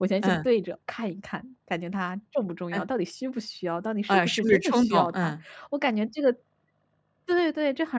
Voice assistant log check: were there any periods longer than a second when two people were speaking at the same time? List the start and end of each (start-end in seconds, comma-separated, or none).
4.1-5.3